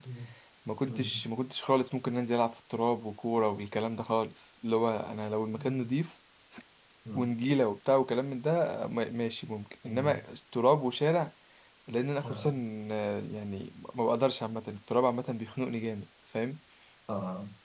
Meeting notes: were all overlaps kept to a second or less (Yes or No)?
Yes